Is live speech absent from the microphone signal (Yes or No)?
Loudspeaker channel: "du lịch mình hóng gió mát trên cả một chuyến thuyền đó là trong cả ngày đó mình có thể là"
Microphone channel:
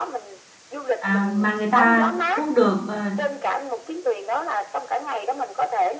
No